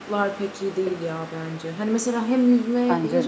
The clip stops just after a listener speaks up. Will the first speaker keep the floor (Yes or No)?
Yes